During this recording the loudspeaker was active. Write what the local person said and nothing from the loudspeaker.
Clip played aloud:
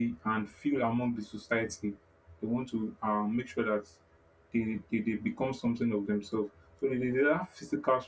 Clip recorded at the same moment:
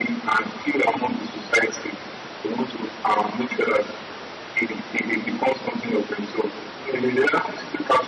none

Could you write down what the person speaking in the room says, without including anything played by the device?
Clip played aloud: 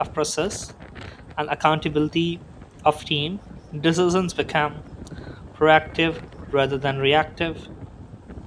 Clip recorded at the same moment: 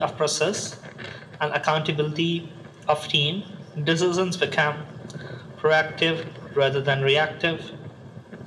none

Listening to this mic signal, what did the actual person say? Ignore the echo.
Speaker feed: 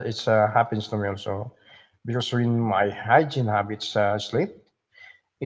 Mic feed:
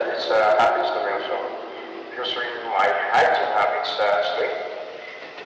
none

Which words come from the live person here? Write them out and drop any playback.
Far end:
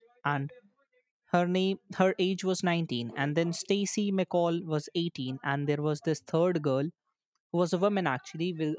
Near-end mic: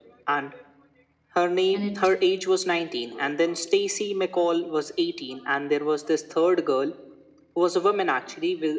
and it

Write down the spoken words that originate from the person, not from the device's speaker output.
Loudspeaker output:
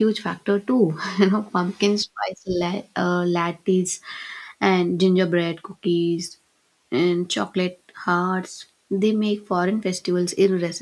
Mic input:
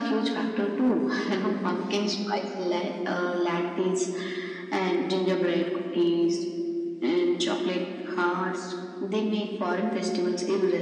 none

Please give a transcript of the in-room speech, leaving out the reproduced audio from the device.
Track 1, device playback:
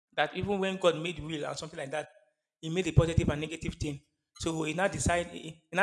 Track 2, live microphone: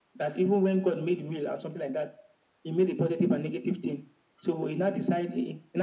none

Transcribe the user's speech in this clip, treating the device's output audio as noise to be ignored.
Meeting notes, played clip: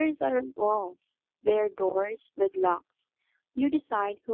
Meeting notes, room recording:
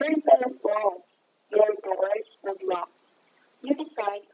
none

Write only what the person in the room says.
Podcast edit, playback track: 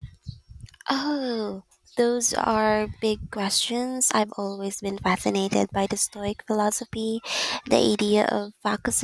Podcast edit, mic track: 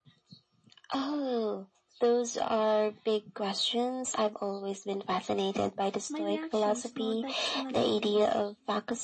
my reactions, not the external events.

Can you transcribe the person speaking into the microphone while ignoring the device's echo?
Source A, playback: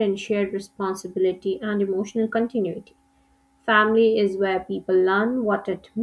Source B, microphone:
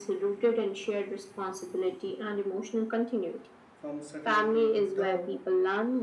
from certainty to doubt.

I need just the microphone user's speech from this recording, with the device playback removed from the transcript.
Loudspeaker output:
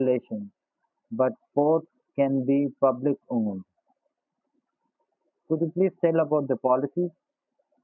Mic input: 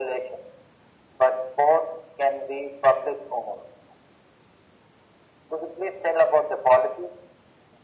none

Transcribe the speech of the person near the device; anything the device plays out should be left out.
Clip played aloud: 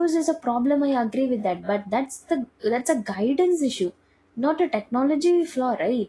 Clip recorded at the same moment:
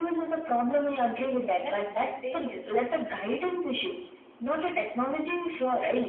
less spontaneous.

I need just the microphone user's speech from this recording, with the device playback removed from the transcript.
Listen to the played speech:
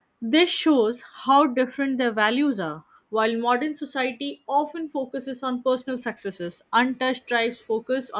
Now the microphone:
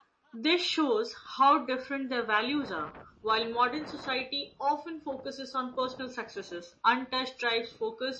none

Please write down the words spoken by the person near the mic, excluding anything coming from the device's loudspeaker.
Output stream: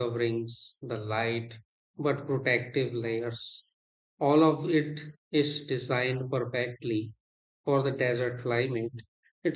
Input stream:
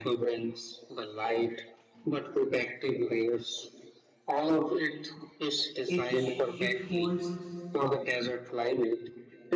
it sh- it holds

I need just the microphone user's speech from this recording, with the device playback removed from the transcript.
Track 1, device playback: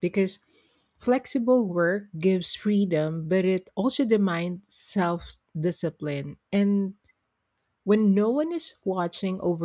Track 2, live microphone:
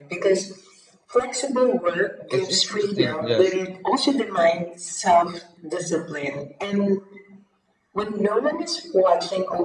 It's easy to think, yes,

